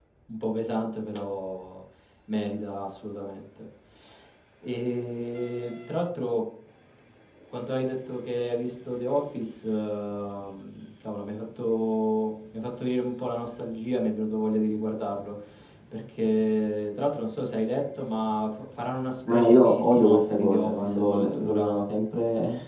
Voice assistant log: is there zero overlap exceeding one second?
No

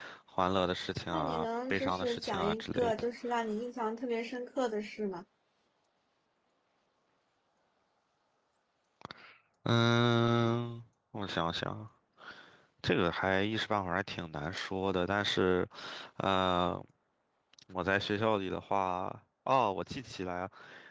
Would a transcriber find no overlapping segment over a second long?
No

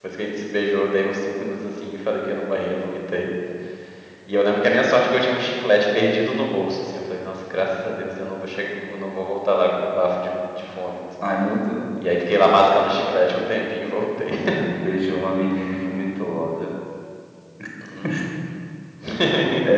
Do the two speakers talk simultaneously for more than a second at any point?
No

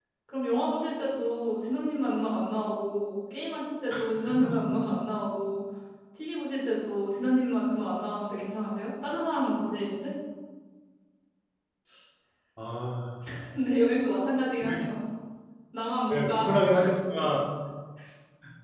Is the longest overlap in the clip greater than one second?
No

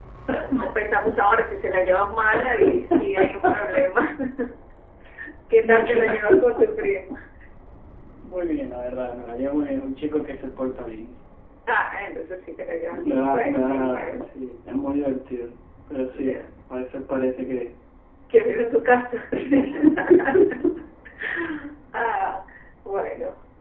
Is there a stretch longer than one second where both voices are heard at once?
Yes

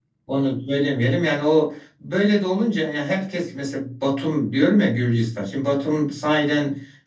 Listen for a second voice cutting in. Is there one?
No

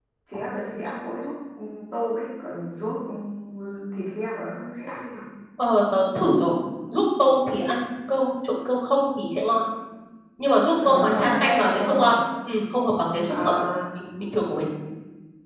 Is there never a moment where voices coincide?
No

